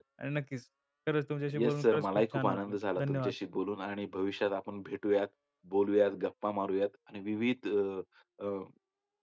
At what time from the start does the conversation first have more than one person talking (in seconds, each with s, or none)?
1.5 s